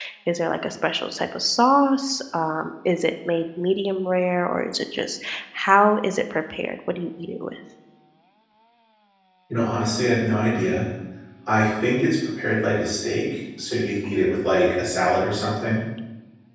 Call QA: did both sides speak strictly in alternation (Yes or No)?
Yes